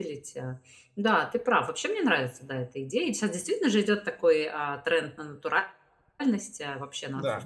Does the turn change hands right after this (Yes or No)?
No